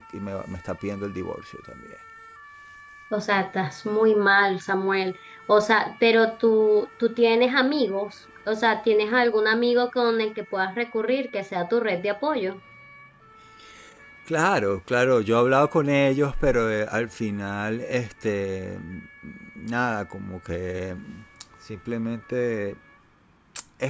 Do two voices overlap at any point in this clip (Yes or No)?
No